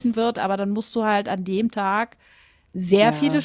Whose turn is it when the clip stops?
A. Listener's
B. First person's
B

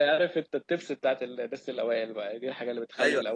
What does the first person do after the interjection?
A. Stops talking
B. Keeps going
A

